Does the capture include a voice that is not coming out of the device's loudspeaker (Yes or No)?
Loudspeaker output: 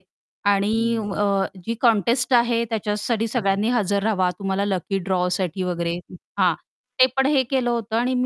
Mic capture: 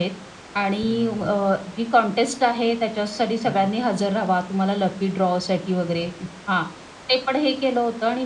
No